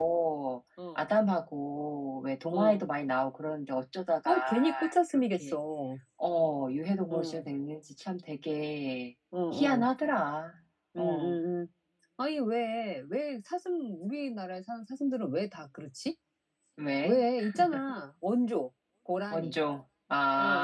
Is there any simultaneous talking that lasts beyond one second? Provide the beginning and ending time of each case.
4.2-5.5

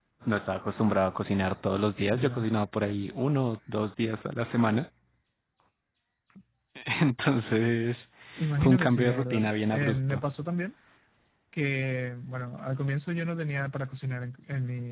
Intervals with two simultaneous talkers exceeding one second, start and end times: 8.6-10.2

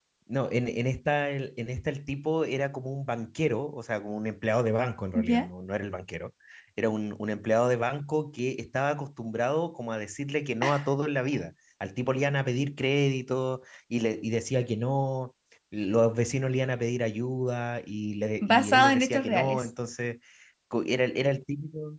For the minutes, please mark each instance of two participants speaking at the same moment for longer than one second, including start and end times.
18.4-19.7

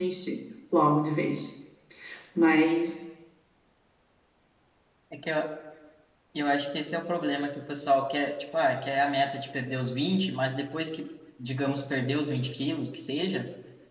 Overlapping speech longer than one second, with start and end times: none

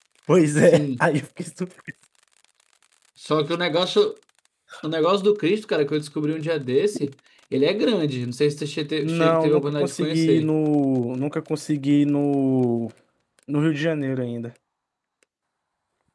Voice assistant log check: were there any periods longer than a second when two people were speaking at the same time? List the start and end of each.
9.0-10.5

